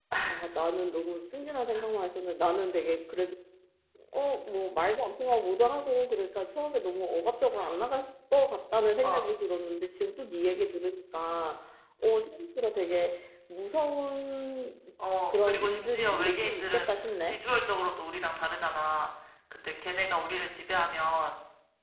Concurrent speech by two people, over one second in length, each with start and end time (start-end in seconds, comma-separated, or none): 15.3-17.4